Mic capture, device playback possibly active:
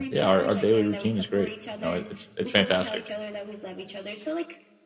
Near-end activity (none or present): present